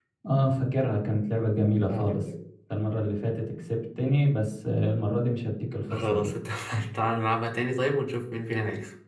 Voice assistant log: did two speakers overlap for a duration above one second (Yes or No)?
No